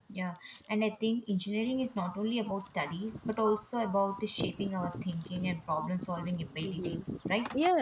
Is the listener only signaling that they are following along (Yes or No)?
No